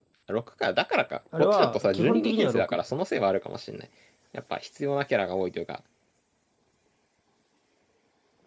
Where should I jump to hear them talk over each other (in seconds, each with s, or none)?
1.3 s